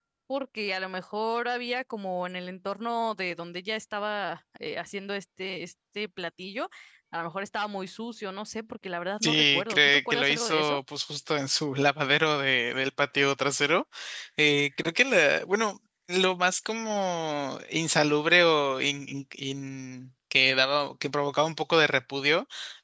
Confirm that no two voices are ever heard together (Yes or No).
No